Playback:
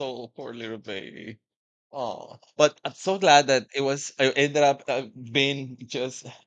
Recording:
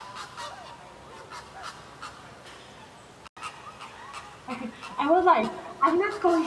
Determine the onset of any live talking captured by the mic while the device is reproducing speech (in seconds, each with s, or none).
4.5 s